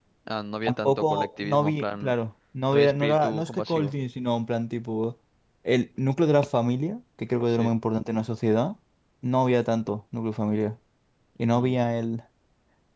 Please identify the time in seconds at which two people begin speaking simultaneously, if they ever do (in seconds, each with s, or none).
0.7 s